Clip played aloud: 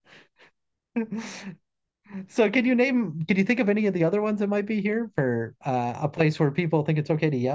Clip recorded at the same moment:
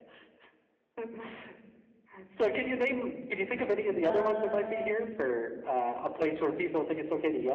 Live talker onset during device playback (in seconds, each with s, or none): 4.0 s